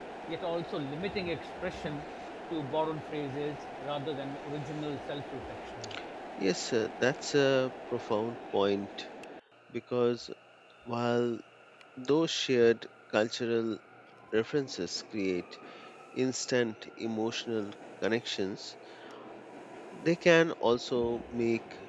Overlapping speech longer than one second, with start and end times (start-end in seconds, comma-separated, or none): none